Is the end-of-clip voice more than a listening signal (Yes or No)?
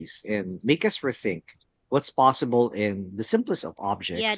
Yes